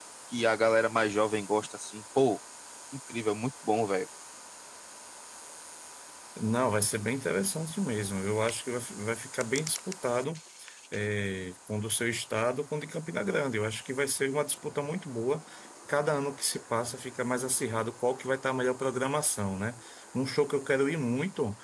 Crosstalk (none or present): none